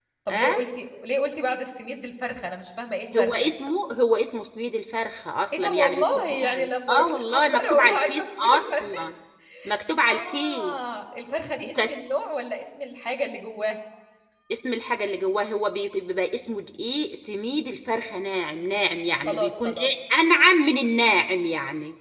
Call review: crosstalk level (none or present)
present